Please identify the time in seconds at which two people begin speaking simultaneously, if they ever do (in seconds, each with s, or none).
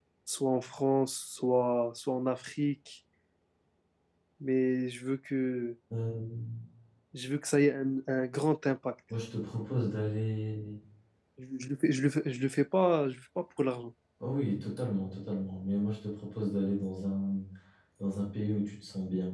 none